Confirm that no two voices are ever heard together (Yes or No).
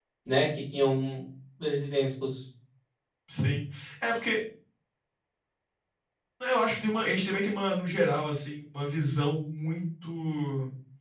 Yes